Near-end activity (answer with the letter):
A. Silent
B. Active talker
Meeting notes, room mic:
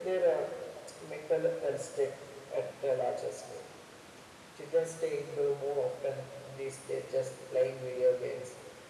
A